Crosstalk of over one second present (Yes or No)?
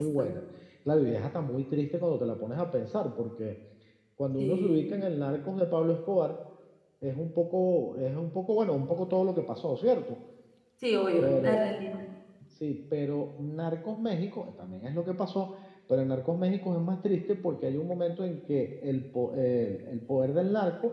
No